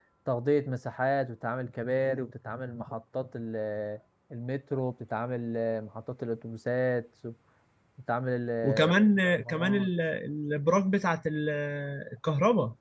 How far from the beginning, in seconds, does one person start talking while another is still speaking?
9 s

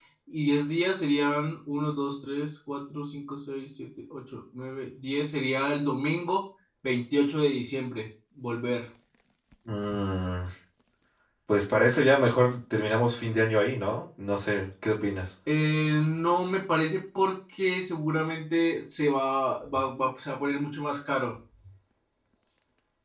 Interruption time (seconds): none

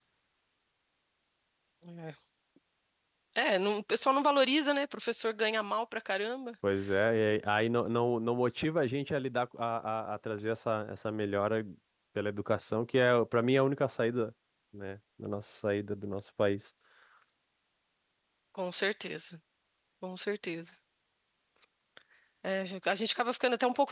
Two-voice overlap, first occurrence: none

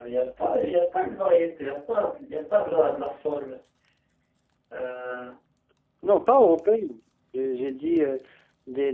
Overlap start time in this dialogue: none

